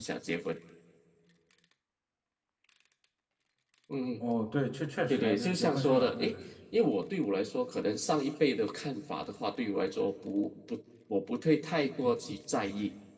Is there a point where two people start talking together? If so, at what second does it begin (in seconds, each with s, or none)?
5.1 s